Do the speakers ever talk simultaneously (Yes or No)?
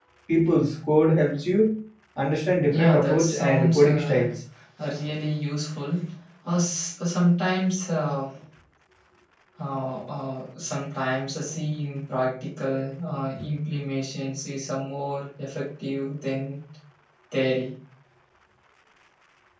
Yes